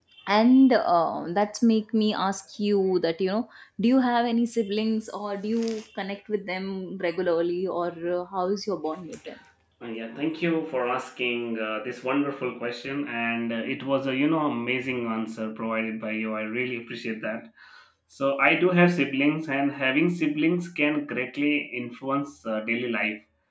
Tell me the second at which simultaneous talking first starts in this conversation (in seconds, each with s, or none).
none